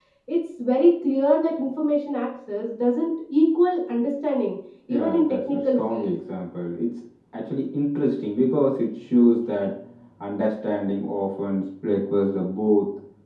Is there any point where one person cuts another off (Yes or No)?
Yes